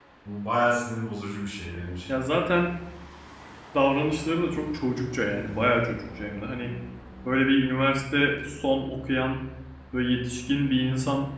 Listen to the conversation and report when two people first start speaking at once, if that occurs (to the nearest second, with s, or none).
none